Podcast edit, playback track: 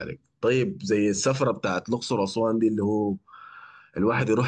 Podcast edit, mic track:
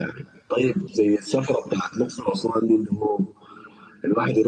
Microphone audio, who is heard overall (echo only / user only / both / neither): echo only